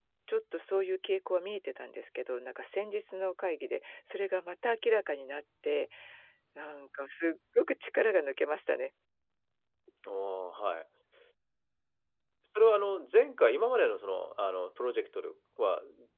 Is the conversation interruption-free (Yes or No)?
Yes